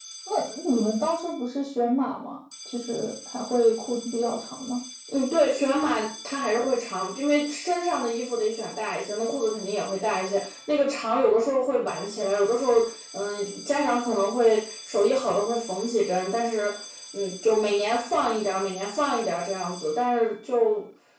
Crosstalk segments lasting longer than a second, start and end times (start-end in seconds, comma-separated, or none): none